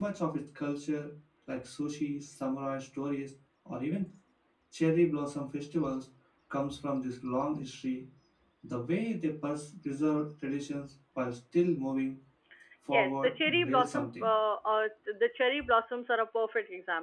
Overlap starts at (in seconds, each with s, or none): 12.9 s